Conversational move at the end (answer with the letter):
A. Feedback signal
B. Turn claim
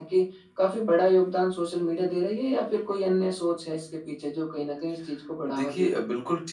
B